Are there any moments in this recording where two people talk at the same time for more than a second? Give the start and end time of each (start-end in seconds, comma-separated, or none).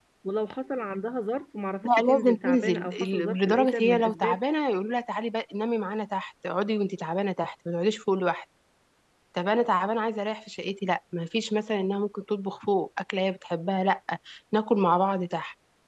1.8-4.4